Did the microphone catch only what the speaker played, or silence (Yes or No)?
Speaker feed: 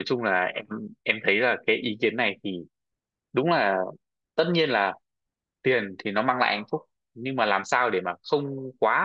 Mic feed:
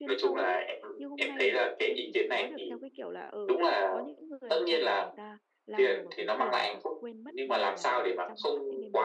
No